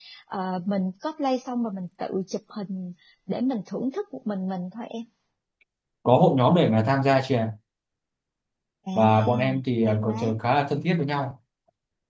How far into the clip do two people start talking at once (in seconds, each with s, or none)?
8.9 s